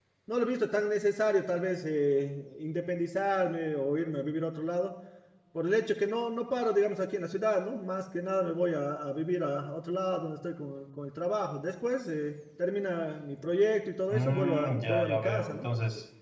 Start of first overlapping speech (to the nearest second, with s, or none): 14 s